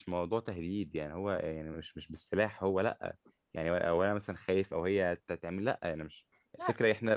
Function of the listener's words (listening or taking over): listening